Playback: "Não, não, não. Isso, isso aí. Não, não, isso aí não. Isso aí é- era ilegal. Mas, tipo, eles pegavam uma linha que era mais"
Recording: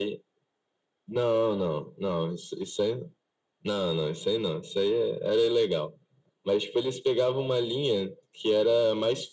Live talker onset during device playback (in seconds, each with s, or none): none